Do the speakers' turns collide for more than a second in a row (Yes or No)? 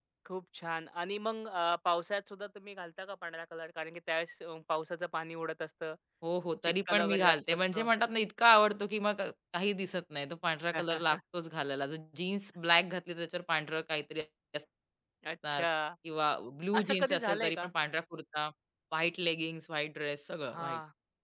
Yes